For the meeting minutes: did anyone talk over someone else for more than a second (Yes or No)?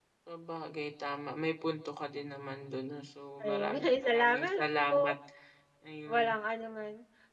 Yes